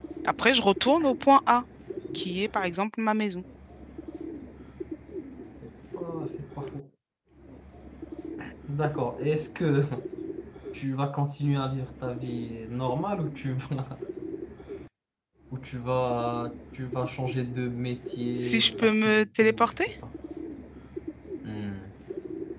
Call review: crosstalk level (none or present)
present